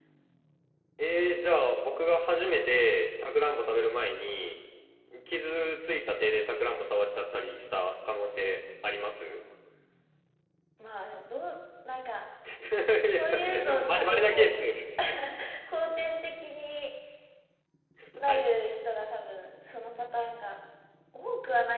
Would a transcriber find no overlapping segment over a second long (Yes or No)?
No